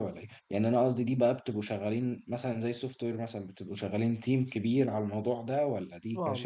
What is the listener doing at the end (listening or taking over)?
taking over